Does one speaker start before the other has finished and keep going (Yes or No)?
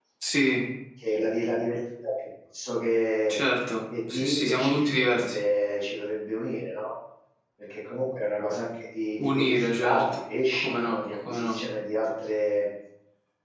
Yes